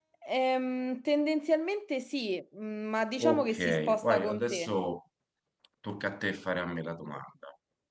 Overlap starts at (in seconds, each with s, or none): 3.2 s